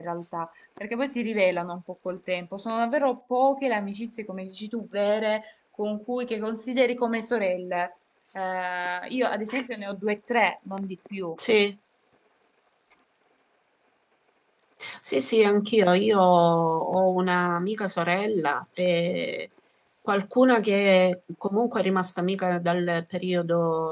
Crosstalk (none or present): none